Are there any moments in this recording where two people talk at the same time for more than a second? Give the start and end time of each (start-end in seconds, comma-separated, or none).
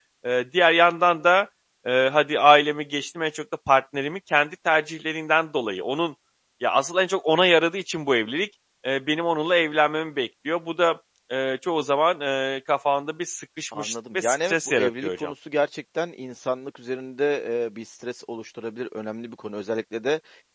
13.8-15.3